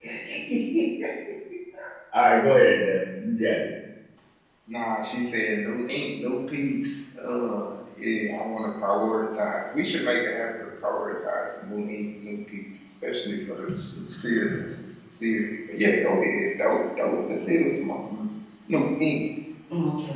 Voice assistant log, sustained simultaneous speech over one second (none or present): none